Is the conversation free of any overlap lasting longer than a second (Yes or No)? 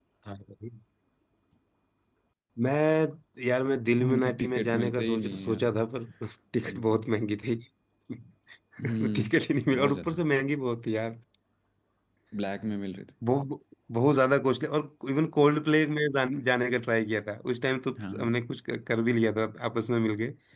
No